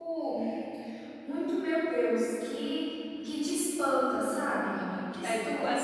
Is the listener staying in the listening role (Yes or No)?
No